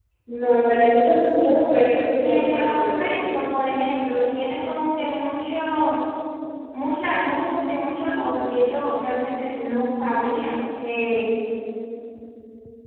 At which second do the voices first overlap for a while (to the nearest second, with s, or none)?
2 s